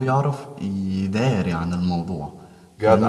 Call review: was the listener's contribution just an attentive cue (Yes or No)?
Yes